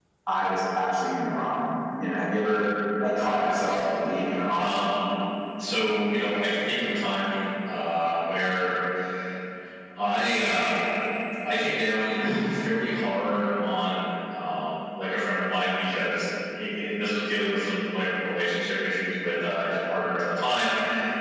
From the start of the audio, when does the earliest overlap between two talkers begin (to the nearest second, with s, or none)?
3 s